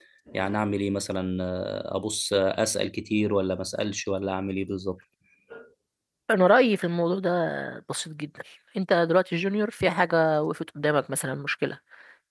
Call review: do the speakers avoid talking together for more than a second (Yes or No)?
Yes